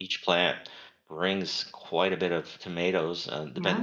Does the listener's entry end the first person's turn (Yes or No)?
No